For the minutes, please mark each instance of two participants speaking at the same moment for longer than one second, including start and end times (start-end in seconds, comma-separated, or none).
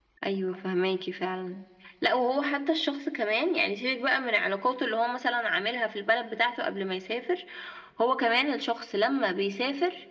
none